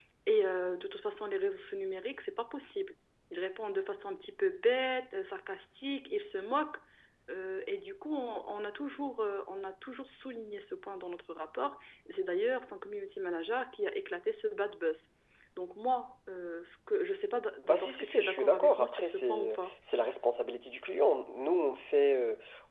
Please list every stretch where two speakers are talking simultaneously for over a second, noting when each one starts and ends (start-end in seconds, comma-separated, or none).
17.6-19.6